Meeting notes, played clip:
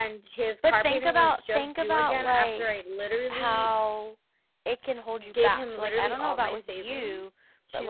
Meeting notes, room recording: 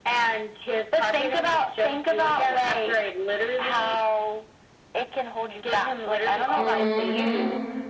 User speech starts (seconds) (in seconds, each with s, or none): 6.6 s